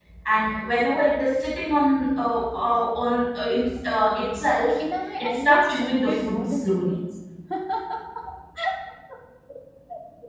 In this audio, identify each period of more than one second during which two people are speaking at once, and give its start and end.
5.2-7.0

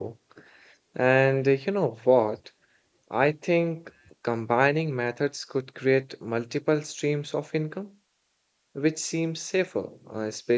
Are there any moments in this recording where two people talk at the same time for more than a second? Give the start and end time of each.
none

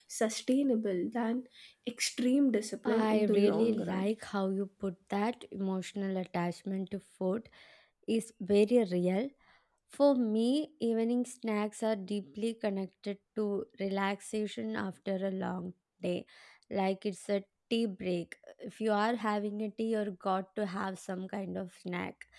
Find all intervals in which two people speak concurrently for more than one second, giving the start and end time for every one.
2.9-4.1

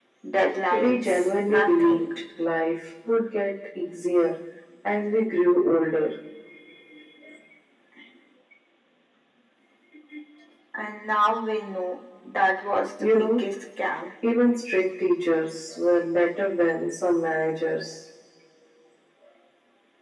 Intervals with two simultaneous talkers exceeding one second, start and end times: 0.7-2.0

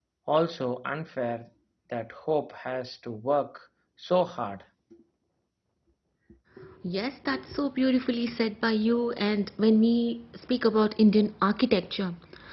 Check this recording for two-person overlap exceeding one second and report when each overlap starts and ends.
none

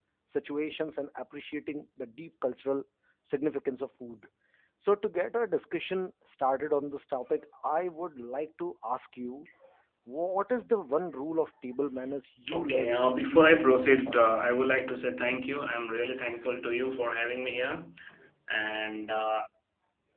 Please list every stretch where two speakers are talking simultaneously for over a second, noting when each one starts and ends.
12.5-14.3

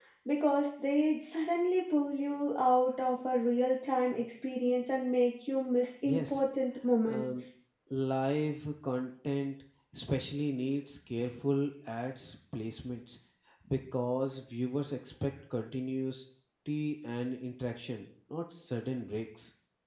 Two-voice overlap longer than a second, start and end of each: none

